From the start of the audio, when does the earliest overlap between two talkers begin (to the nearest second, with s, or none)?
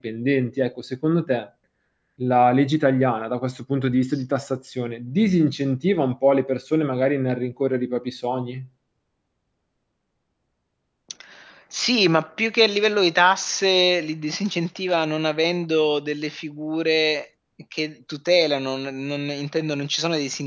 none